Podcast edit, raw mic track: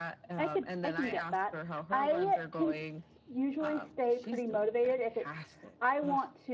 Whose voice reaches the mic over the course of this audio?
both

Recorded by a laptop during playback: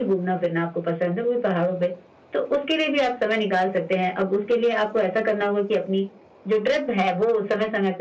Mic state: echo only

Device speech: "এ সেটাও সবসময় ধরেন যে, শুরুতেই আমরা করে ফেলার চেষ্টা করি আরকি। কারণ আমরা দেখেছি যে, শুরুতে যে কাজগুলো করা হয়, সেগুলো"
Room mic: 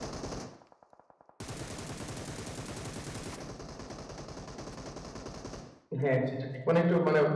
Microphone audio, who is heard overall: user only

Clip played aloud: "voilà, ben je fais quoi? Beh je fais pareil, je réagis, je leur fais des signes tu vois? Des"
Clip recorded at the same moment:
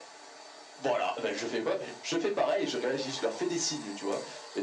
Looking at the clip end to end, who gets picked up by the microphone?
echo only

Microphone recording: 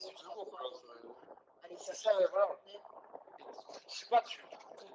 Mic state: echo only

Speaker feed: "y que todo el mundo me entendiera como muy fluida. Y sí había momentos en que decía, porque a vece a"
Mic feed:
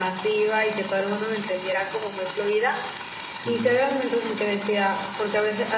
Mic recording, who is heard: both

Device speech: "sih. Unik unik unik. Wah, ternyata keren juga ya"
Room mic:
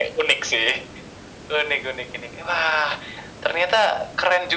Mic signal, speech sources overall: echo only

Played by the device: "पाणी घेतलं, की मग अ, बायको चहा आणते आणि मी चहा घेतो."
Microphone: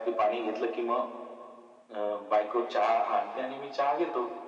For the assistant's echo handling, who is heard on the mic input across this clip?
echo only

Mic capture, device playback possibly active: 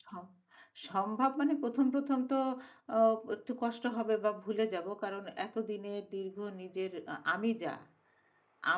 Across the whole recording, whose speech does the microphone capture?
user only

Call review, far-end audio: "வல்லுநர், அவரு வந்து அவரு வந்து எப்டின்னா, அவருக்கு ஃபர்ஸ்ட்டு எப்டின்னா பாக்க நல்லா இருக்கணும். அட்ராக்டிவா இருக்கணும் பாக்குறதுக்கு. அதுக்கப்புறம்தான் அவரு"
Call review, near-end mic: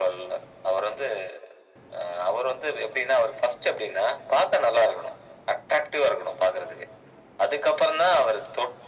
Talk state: echo only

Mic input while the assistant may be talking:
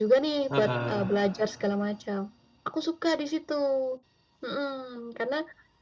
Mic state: both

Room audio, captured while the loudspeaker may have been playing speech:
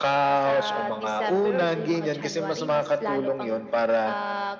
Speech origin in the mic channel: echo only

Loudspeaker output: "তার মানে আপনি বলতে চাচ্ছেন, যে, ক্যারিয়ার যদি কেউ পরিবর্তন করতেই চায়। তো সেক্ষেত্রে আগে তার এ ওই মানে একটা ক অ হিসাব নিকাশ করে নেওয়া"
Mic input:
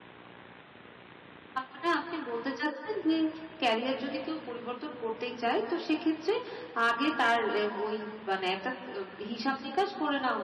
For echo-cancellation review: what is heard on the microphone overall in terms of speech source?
echo only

